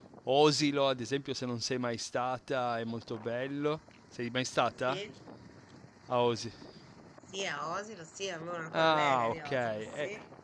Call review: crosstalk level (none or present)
present